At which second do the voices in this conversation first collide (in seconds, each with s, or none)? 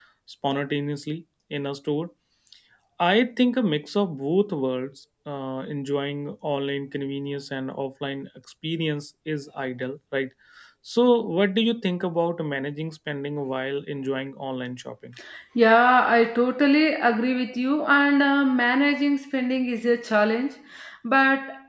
none